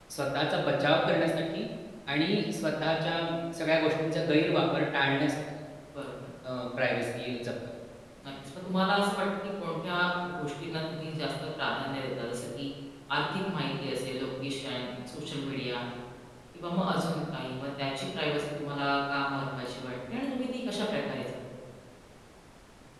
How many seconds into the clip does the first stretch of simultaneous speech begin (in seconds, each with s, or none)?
none